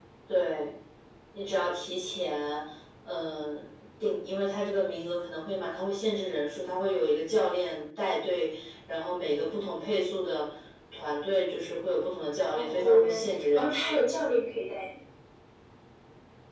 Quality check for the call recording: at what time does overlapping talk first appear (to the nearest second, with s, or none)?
13 s